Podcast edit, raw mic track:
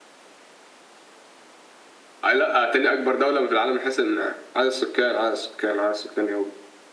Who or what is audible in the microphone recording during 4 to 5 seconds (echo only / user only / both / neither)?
echo only